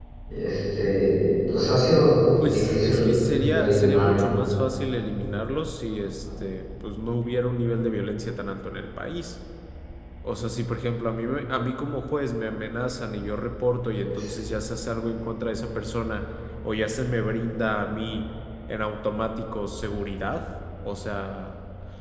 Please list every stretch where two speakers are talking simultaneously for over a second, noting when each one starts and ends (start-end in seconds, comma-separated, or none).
2.5-4.2